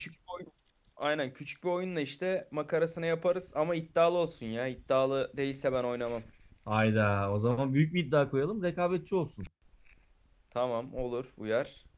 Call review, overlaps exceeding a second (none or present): none